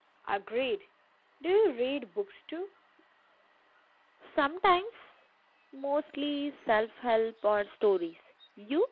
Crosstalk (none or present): none